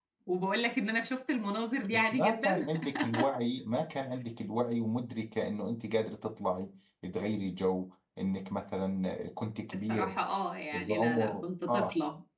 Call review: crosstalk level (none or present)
present